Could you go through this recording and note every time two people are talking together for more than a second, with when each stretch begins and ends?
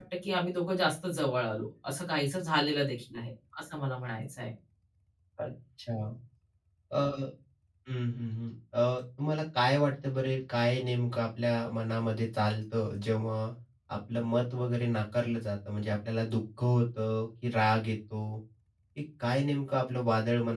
none

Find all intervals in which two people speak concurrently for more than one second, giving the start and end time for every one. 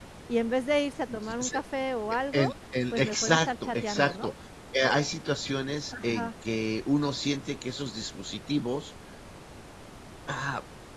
2.9-4.3

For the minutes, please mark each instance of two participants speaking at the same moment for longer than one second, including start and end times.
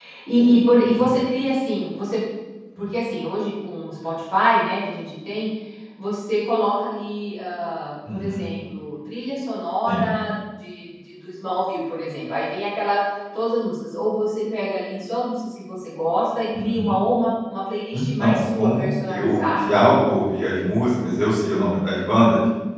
17.9-20.1

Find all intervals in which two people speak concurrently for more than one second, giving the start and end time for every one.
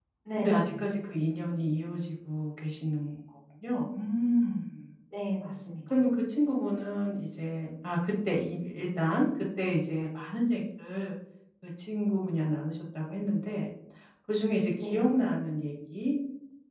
none

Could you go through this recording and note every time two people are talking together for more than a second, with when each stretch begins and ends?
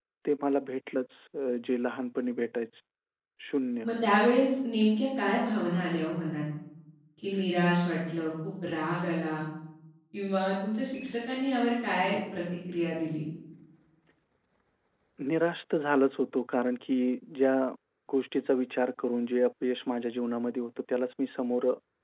none

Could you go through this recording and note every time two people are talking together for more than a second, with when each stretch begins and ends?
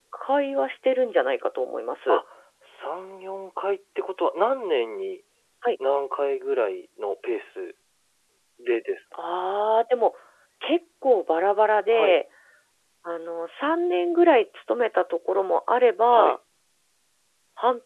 none

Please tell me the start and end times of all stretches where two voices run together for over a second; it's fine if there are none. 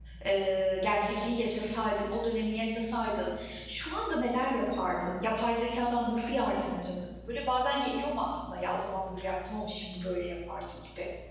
none

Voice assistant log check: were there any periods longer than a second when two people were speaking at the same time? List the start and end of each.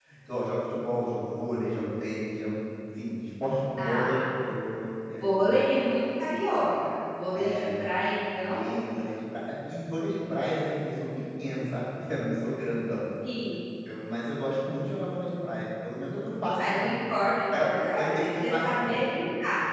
17.6-19.0

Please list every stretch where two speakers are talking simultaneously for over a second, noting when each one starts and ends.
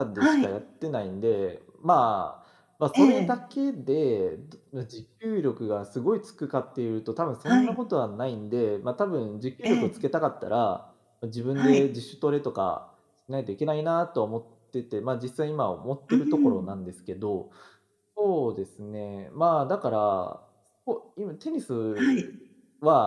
none

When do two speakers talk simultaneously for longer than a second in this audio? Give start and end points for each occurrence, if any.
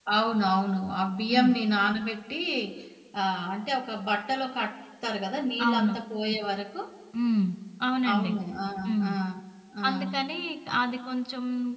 none

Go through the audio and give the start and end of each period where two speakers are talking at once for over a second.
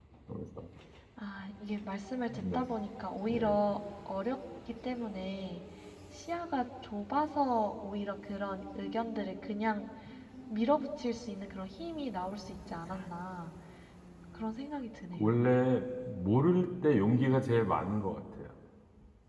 none

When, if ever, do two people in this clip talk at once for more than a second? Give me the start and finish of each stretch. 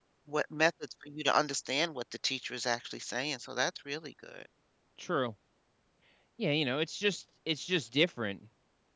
none

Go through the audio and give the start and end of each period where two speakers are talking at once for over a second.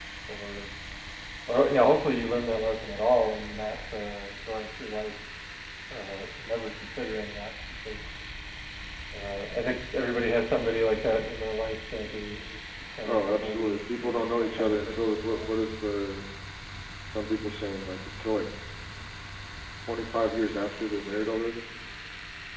13.0-15.4

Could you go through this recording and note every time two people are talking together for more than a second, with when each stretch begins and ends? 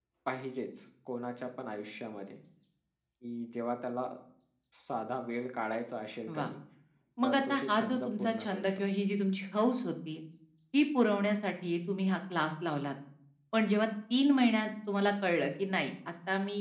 7.2-8.8

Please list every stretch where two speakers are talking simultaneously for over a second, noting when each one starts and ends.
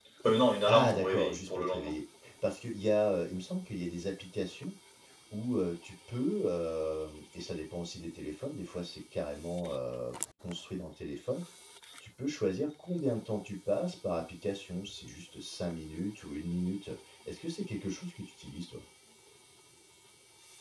0.7-1.9

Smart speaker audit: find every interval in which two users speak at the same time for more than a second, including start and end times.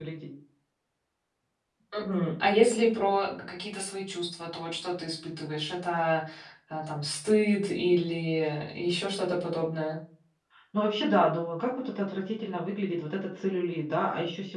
none

